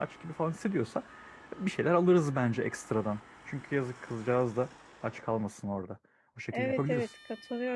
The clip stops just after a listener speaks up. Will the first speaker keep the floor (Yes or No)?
No